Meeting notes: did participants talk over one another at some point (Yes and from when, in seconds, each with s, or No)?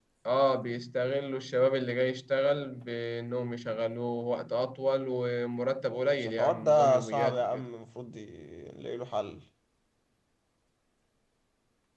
Yes, from 6.2 s